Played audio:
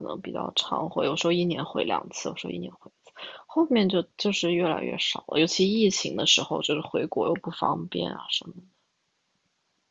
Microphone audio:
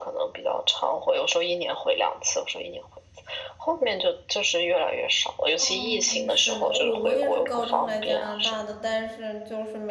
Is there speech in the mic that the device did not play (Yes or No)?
Yes